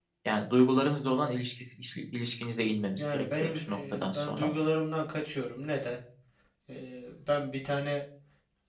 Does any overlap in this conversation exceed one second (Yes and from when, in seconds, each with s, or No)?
Yes, from 3.0 s